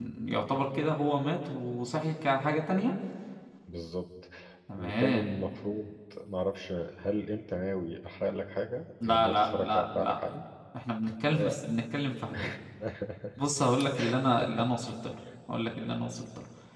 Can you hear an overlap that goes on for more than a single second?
Yes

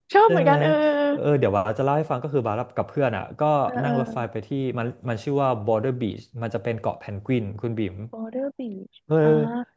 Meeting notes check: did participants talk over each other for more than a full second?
No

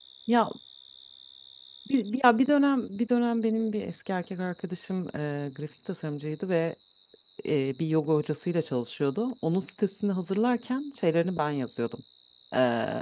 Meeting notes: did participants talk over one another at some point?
No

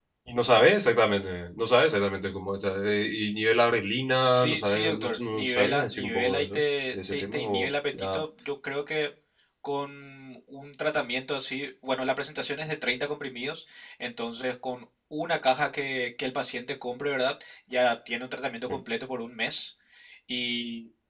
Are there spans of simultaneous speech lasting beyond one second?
Yes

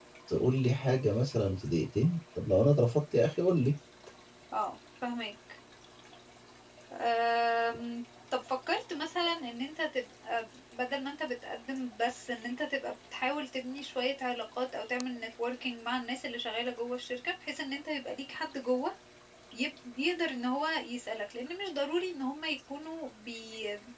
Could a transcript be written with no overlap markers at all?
Yes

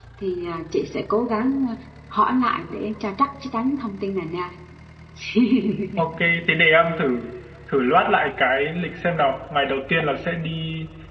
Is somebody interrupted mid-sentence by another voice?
No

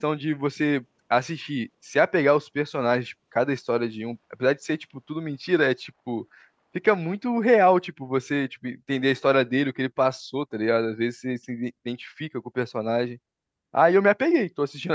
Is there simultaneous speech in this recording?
No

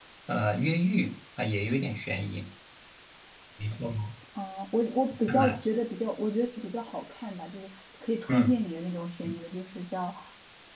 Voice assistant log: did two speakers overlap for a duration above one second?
No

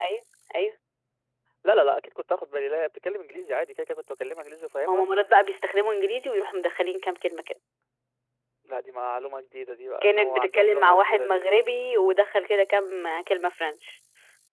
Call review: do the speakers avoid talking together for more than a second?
No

